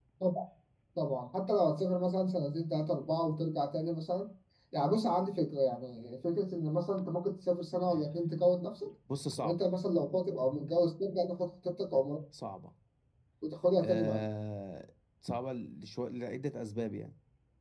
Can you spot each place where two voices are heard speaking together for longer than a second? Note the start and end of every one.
none

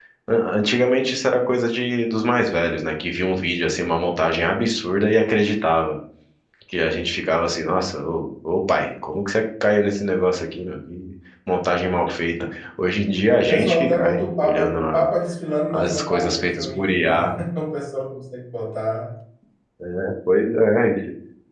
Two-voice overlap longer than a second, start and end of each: 13.4-15.1, 15.7-17.3

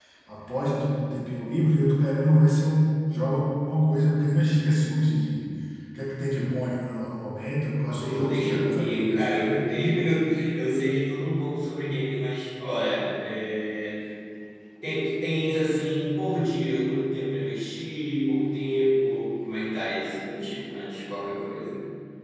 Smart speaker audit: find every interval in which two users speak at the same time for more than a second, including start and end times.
7.9-9.7

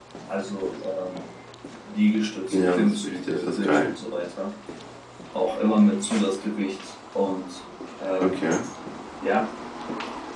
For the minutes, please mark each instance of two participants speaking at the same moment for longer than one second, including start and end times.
2.5-3.9

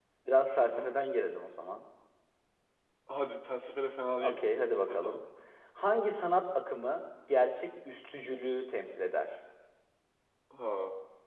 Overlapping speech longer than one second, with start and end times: none

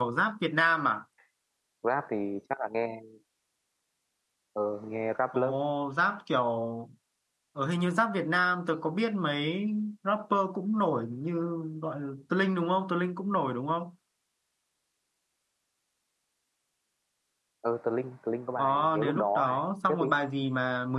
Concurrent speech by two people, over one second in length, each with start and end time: 18.6-20.1

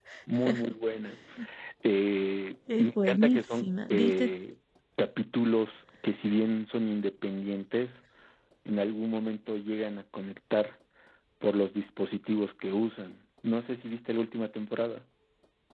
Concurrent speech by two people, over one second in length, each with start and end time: 2.8-4.3

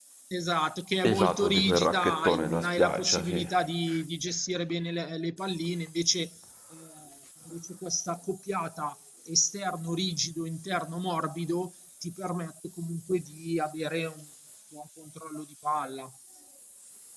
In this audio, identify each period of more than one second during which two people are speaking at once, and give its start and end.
1.0-3.5

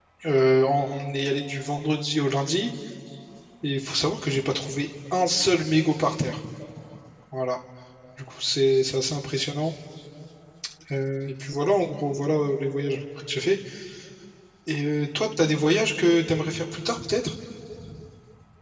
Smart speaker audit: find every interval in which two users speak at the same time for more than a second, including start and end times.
none

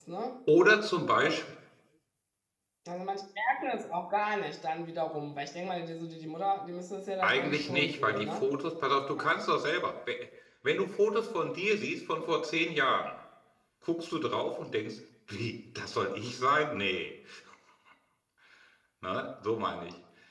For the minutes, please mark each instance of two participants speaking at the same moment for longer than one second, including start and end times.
7.2-8.5

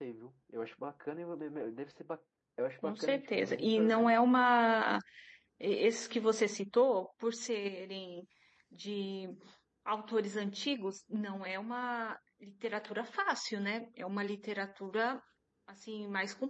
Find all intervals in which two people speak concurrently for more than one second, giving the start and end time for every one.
2.8-4.2

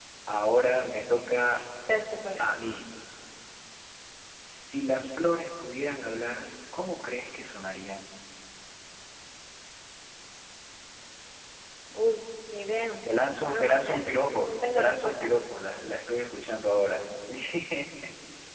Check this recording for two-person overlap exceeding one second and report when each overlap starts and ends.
13.4-15.4

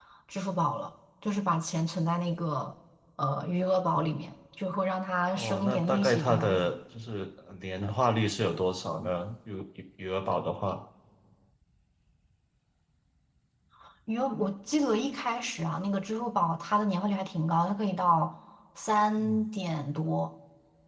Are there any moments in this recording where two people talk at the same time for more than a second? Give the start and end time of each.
5.4-6.8

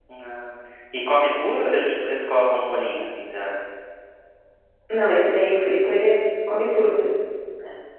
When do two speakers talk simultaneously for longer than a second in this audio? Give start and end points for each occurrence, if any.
none

